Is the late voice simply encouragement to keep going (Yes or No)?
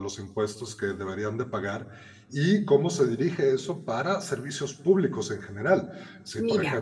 Yes